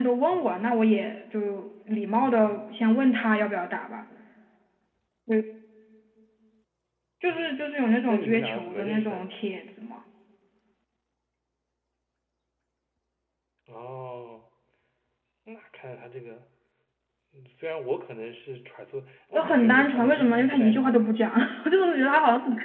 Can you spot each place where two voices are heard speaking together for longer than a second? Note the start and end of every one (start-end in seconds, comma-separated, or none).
8.1-9.3, 19.3-21.0